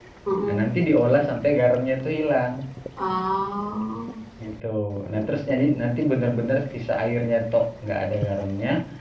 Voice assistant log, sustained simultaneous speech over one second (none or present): none